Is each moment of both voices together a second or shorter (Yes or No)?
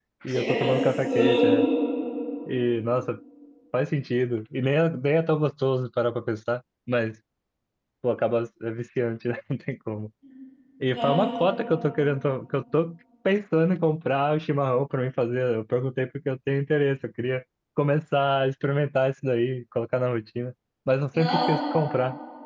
No